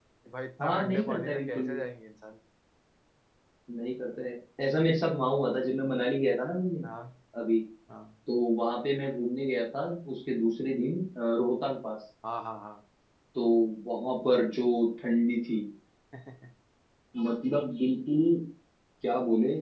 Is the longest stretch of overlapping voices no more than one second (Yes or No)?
No